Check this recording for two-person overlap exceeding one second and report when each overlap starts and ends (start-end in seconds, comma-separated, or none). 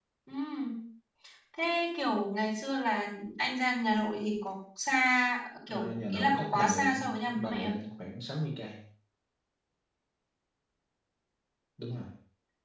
5.7-7.7